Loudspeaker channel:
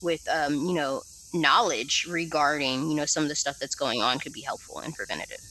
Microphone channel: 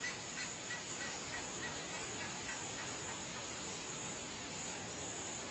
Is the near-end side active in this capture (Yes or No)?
No